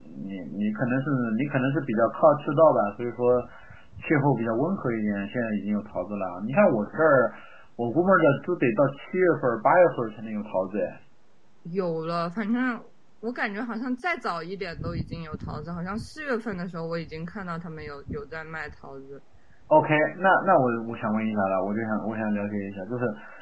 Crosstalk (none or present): none